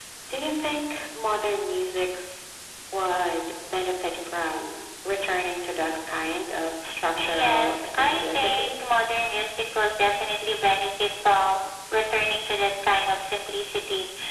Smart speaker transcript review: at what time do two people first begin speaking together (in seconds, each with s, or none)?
7.2 s